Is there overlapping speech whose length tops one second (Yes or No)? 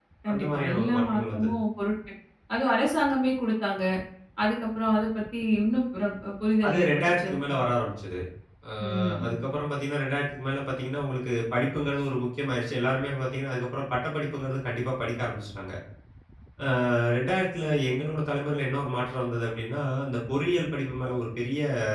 Yes